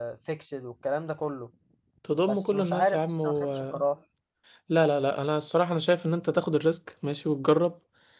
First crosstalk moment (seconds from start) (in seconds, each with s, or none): 2.3 s